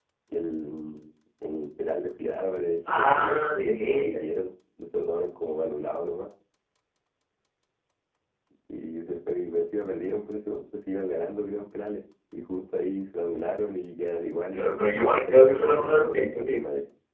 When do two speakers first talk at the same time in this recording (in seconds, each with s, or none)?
2.9 s